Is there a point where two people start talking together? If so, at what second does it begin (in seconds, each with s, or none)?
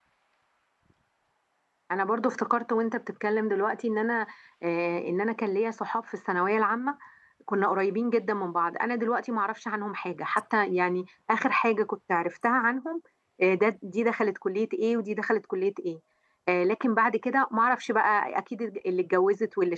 none